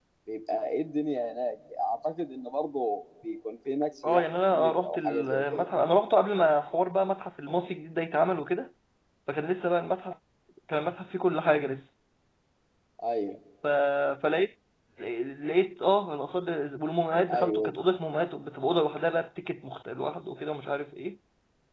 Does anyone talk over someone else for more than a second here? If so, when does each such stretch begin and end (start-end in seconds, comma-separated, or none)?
4.1-5.7